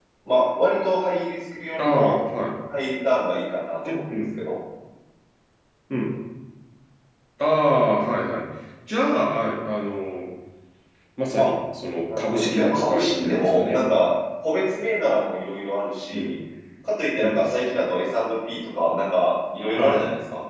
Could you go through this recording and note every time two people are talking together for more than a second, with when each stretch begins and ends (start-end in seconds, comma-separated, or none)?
12.2-13.8